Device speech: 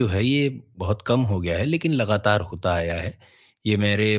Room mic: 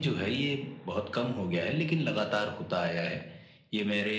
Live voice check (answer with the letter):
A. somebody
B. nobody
B